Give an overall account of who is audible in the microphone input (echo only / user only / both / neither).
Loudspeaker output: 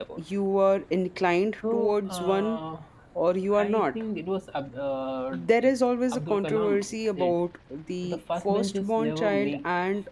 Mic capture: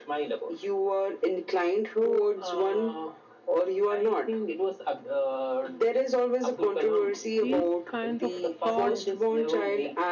both